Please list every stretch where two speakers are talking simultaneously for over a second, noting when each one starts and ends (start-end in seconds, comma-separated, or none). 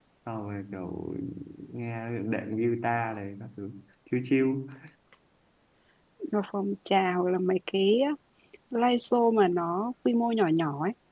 none